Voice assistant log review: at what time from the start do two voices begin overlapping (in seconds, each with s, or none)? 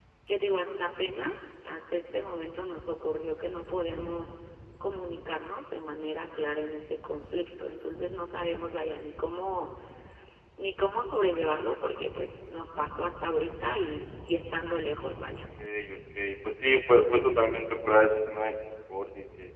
none